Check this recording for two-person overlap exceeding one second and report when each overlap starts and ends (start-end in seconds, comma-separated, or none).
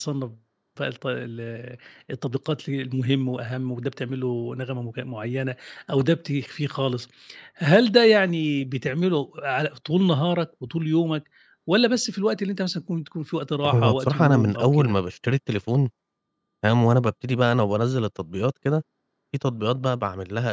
13.7-15.0